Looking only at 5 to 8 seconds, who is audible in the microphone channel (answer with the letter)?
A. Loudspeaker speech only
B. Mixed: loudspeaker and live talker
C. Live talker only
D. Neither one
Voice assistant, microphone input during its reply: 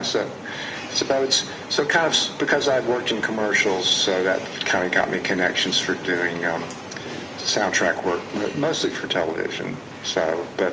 A